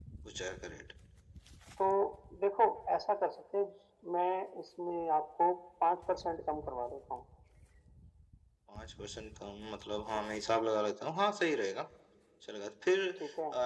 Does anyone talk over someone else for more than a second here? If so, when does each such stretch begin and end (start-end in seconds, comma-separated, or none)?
none